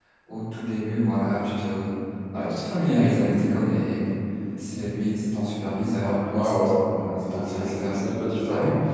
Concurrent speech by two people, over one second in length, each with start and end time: 6.0-8.0

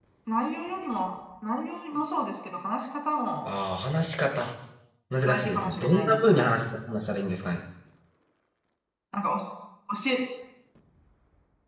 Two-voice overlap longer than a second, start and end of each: 5.2-6.5

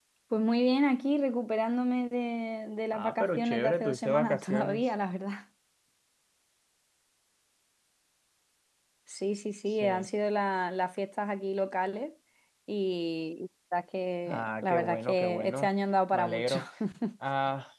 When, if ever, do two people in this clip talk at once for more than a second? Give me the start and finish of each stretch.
2.9-4.8, 14.3-15.7

